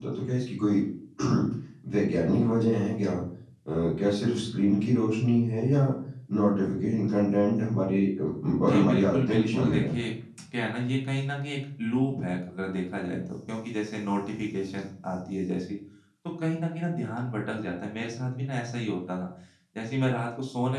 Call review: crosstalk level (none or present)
present